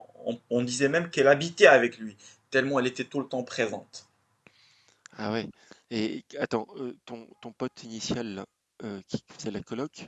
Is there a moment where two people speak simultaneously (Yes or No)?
No